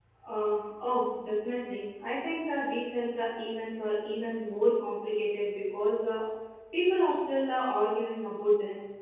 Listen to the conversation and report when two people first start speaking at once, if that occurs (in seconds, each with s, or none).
none